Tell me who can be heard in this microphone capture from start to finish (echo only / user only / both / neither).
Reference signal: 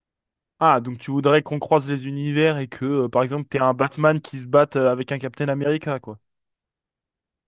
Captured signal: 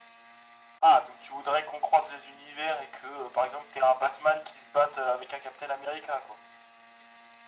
echo only